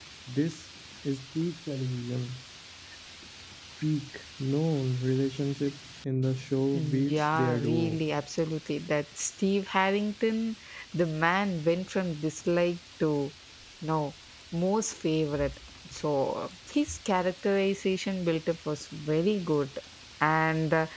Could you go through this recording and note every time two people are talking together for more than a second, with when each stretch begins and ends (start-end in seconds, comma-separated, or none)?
6.7-8.0